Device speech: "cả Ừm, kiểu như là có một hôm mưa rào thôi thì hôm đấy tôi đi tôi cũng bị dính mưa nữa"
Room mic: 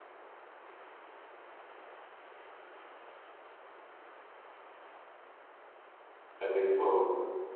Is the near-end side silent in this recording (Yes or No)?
No